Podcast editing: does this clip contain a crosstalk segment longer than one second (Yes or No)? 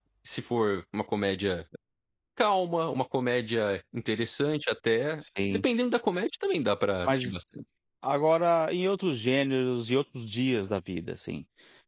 No